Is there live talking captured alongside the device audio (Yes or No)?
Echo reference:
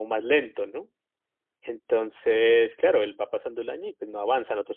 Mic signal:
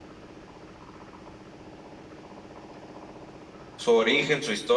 Yes